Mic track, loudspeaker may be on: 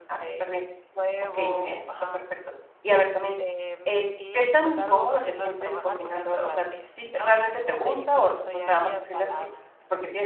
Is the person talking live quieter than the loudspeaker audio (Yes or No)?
No